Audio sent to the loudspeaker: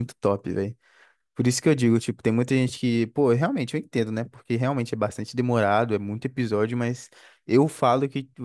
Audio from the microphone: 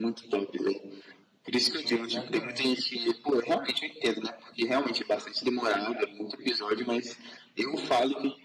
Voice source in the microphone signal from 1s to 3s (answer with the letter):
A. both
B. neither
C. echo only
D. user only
A